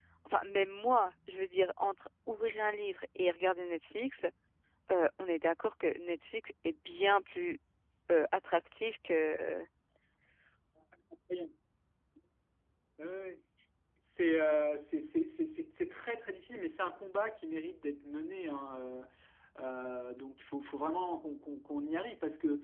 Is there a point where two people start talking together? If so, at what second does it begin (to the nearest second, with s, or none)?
none